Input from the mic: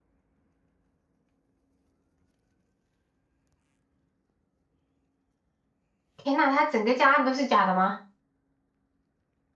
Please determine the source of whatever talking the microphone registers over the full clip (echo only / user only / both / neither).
user only